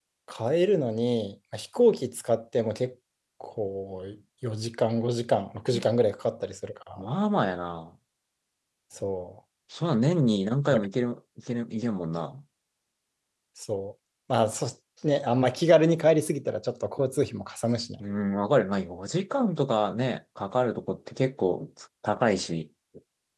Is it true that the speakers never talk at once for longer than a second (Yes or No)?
Yes